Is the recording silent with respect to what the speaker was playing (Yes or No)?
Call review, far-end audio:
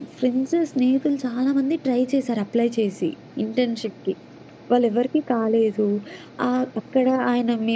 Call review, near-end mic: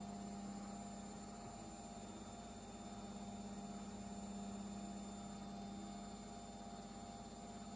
Yes